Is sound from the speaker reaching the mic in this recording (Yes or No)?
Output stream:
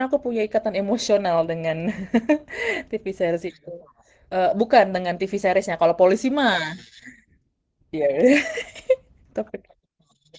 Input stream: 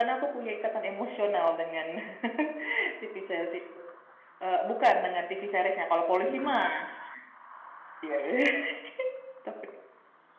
Yes